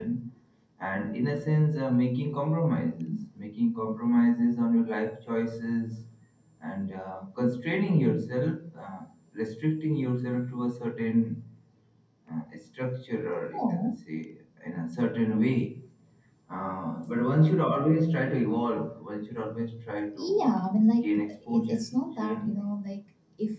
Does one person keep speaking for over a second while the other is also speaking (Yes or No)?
Yes